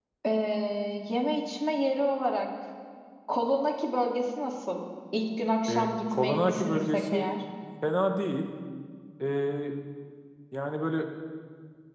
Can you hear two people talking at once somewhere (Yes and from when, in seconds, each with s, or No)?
Yes, from 5.7 s